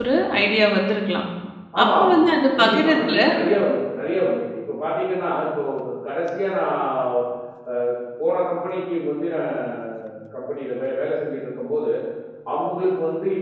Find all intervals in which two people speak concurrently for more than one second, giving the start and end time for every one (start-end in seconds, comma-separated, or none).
1.8-3.2